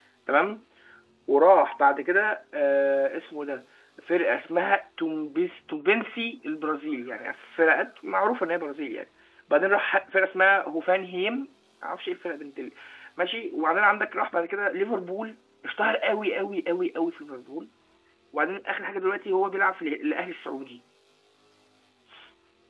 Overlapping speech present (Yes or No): No